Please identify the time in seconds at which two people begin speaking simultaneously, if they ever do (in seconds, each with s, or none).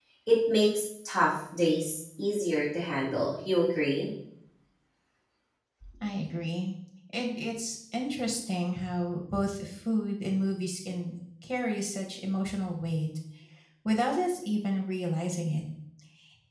none